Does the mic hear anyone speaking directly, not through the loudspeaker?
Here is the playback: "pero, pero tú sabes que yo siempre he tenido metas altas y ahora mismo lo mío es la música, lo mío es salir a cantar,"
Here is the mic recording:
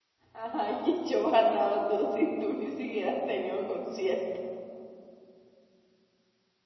Yes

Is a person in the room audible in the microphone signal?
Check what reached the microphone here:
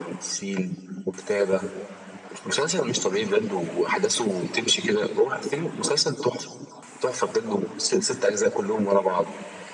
No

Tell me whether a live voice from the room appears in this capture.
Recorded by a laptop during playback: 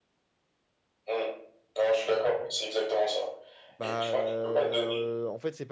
Yes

